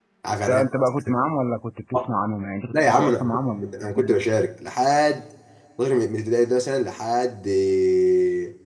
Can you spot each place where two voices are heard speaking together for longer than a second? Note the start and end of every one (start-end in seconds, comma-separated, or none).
2.7-4.2